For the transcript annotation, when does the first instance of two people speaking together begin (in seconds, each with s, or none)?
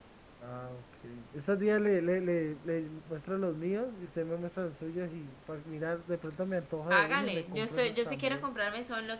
6.9 s